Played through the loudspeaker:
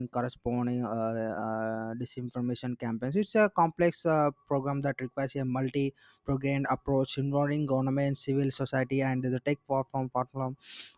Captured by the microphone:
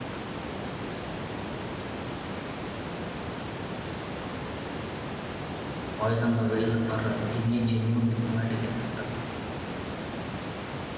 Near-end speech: present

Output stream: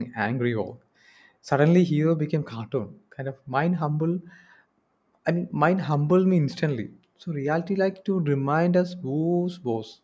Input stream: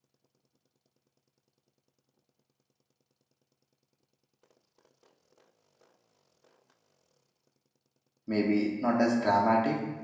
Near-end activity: present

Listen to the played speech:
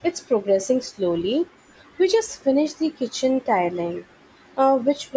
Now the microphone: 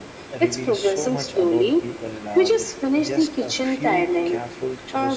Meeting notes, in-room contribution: present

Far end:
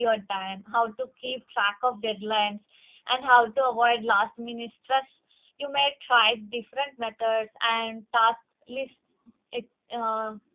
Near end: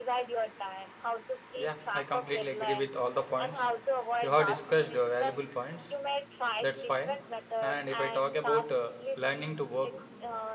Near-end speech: present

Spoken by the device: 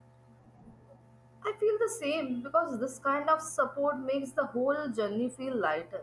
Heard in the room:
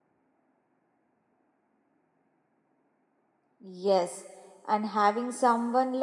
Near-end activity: present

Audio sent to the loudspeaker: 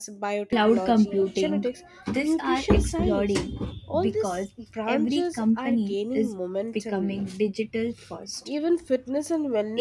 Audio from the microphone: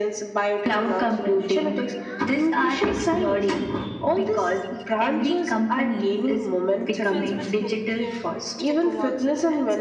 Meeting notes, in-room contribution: present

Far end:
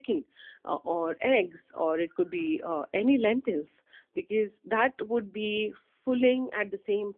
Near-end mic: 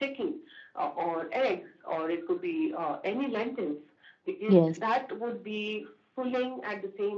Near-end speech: present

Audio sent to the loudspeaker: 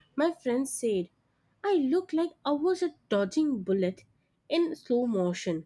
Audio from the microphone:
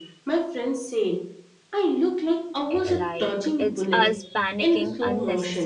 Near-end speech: present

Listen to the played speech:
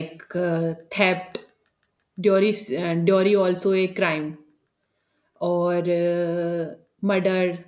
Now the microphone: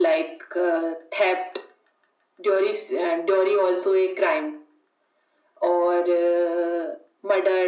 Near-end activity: none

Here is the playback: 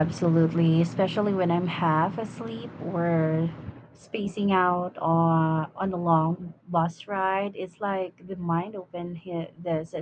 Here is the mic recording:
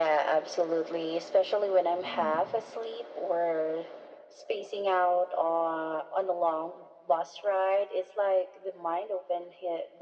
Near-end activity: present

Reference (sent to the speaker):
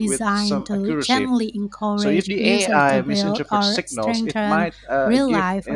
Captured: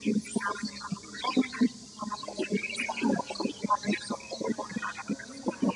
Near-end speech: none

